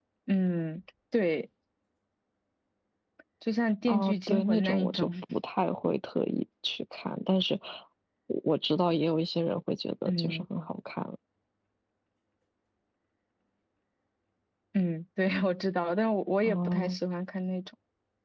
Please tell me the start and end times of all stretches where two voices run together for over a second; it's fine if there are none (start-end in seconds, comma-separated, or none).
3.9-5.1